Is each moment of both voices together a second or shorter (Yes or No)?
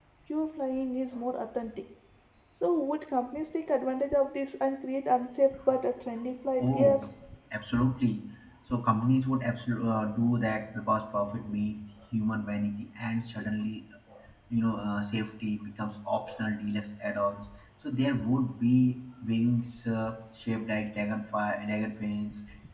Yes